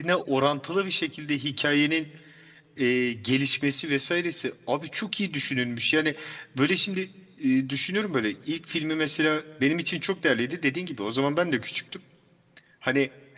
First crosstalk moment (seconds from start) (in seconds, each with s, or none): none